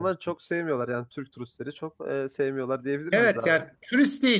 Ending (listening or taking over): taking over